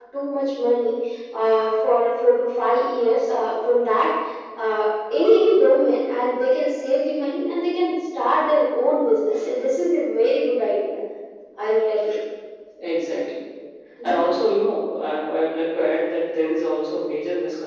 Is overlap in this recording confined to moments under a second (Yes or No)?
Yes